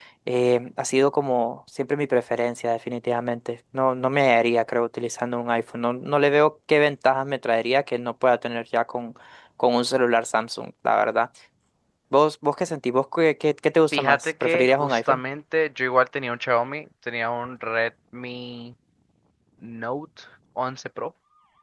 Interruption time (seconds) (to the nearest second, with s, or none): 14 s